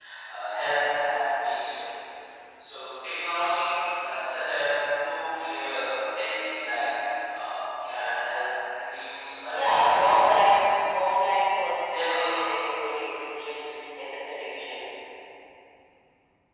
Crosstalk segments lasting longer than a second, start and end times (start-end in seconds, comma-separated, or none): 9.5-10.8